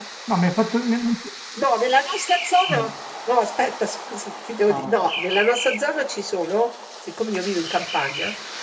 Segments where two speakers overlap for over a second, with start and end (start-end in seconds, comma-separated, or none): none